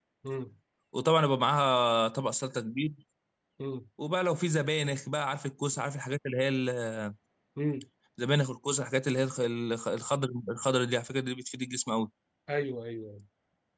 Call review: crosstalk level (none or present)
none